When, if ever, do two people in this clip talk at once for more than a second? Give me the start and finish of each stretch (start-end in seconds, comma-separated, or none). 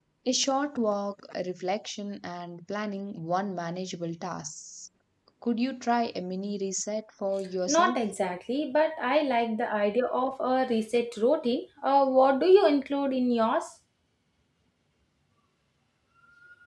none